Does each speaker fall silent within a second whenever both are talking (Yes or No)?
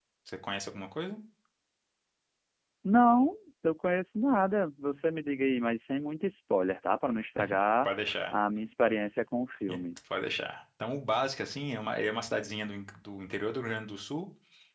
Yes